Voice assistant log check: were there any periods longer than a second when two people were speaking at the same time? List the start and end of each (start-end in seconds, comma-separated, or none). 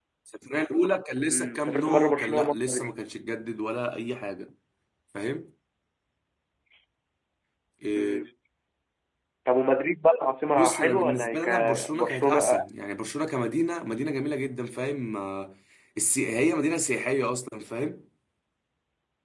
1.3-2.9, 10.6-12.6